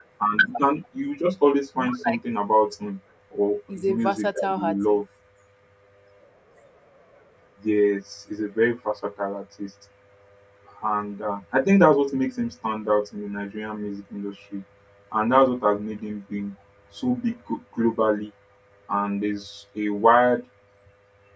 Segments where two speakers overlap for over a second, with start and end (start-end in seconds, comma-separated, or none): 3.7-5.0